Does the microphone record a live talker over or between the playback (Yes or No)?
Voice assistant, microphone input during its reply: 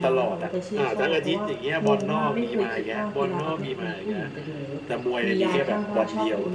Yes